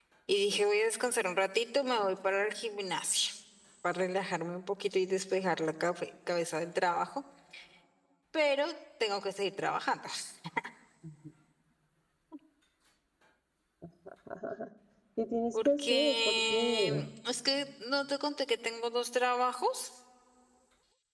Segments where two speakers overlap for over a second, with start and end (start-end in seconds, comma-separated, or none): 15.7-17.0